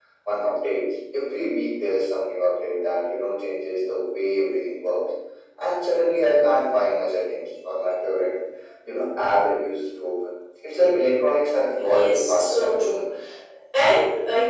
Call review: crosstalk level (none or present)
present